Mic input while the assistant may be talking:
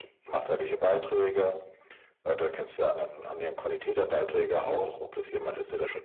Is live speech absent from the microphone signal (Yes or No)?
Yes